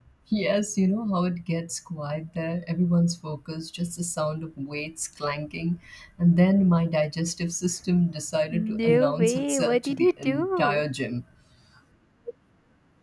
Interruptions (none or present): present